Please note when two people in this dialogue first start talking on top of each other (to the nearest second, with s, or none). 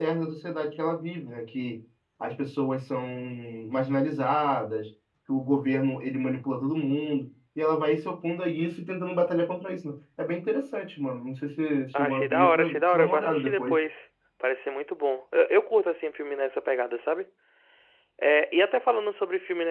12 s